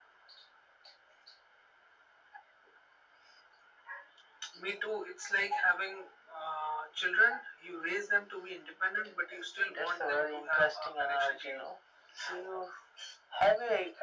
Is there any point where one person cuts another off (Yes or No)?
Yes